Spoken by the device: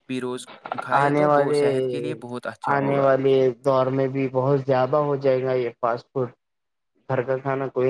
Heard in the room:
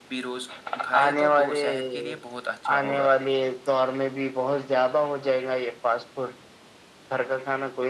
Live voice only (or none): none